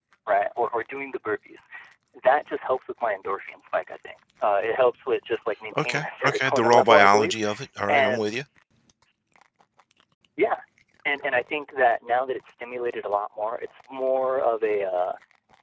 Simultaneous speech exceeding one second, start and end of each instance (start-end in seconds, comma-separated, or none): 5.8-7.3